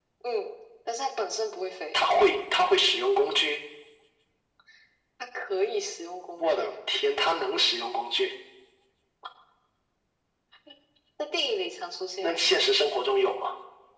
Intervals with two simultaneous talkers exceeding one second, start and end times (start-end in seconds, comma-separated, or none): none